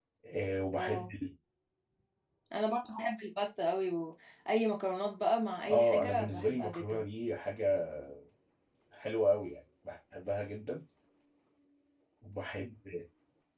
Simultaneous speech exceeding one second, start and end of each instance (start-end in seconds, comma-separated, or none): 5.7-7.0